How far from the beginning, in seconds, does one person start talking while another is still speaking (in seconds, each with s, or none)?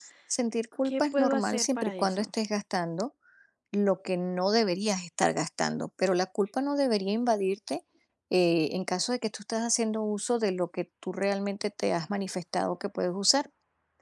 0.8 s